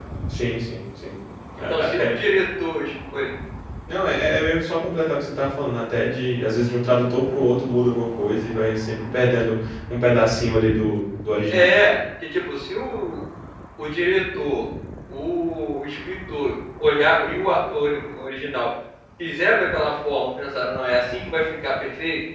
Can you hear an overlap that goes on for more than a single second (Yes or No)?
No